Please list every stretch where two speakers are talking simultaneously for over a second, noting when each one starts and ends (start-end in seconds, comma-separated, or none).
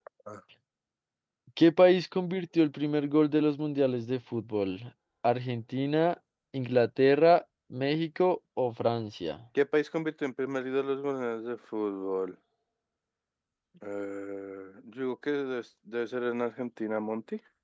none